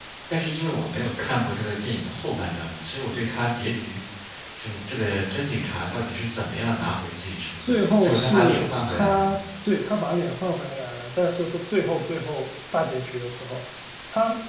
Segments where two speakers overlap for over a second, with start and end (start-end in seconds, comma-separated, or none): 7.7-9.4